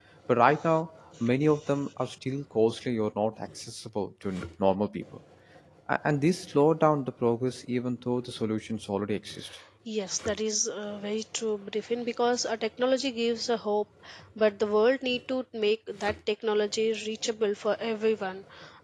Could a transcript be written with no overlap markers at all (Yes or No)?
Yes